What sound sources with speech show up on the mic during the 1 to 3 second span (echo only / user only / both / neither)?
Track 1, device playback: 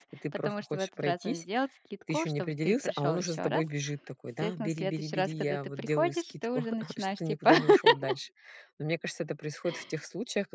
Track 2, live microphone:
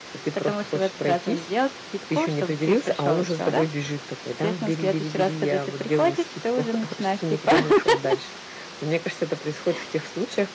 echo only